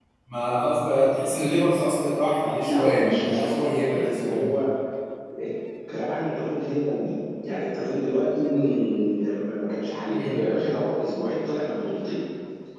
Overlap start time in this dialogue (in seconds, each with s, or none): 2.6 s